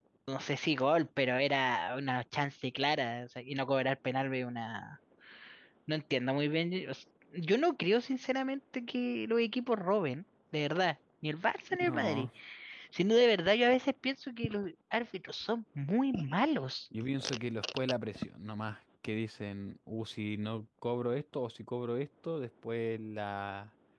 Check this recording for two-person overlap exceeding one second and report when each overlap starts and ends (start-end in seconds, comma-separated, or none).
none